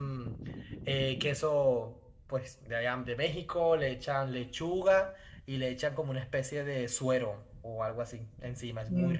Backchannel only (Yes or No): No